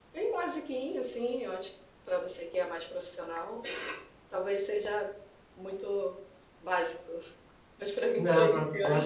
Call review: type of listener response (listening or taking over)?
taking over